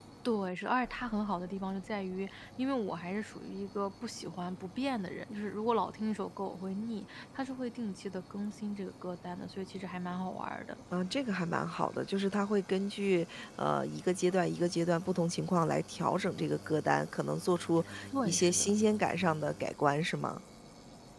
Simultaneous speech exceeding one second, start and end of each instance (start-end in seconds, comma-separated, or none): none